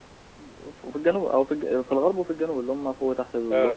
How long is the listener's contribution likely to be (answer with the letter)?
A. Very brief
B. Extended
A